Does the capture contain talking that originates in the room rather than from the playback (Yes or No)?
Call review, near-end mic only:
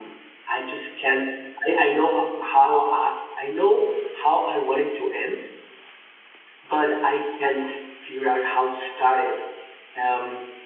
Yes